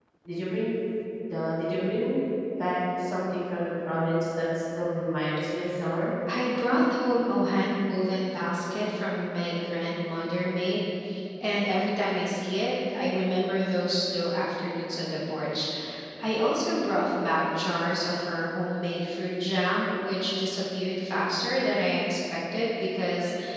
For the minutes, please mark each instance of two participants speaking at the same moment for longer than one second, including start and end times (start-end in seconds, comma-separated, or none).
none